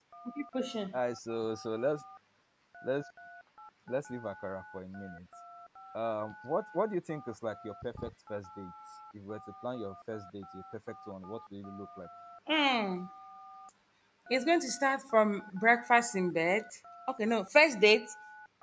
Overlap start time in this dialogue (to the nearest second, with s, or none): none